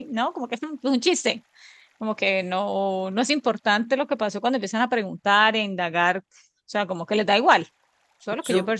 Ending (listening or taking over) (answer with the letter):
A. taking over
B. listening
A